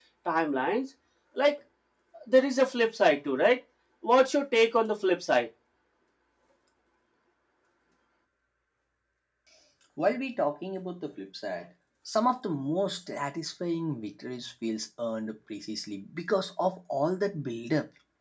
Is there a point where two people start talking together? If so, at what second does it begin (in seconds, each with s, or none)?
none